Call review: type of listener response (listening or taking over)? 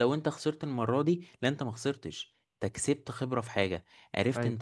listening